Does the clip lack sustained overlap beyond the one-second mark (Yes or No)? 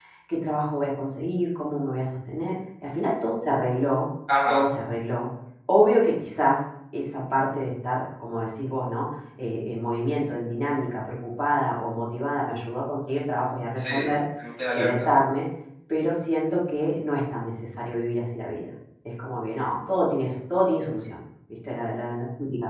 Yes